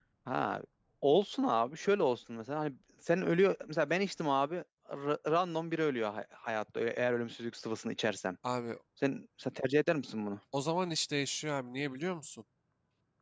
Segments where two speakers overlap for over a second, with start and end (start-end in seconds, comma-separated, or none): none